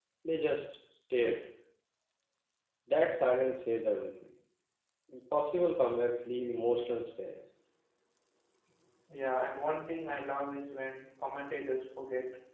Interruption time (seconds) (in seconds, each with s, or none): none